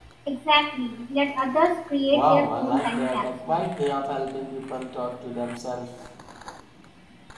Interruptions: present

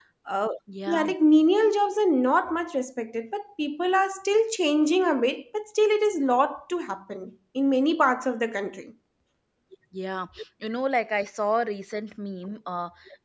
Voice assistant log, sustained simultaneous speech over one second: none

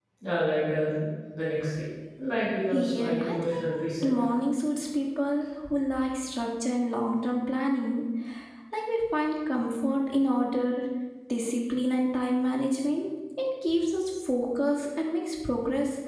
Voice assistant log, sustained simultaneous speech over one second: present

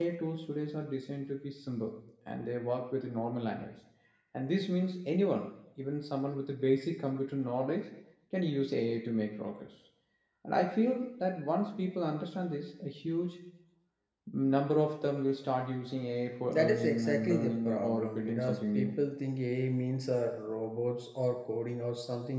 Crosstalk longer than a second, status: present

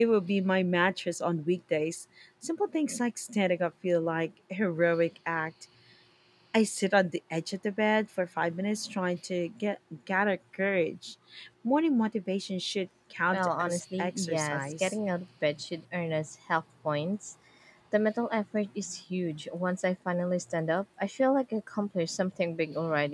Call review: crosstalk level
present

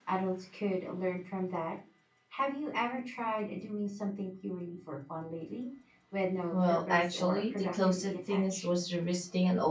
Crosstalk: present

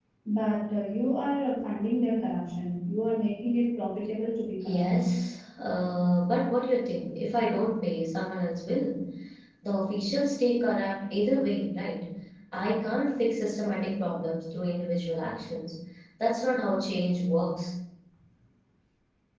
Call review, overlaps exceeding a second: none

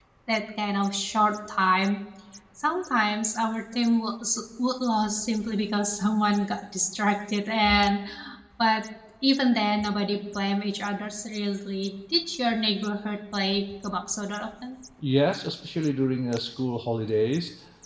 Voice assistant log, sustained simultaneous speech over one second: none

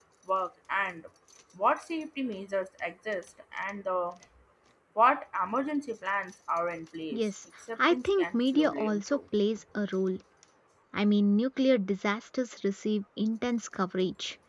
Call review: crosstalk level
present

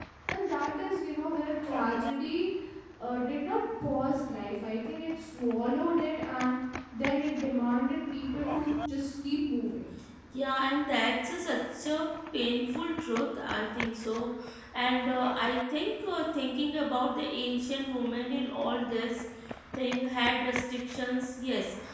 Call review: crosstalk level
none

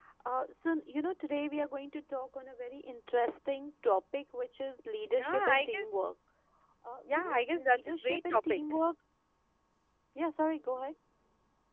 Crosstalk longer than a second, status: present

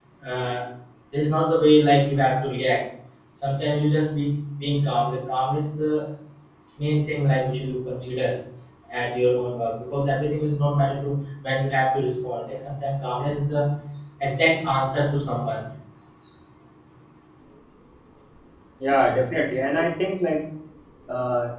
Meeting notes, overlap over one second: none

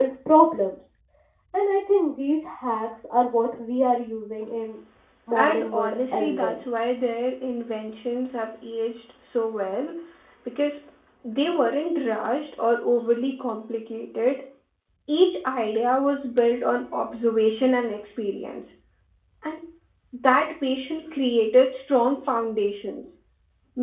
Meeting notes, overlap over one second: present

